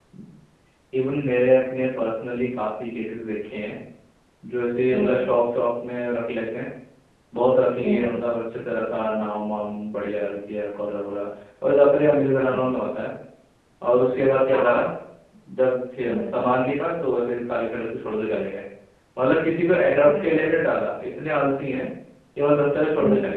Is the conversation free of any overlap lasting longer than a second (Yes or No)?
Yes